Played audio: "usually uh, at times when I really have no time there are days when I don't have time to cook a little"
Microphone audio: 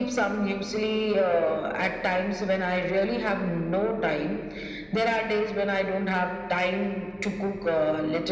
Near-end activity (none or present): none